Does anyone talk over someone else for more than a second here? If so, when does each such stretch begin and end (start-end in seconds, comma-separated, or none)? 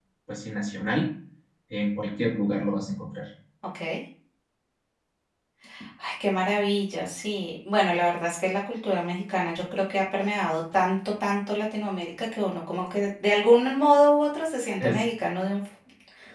none